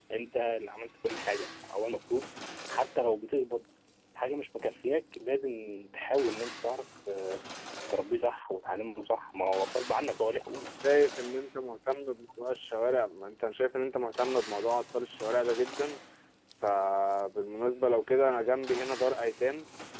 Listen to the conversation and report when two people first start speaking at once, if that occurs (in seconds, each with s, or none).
none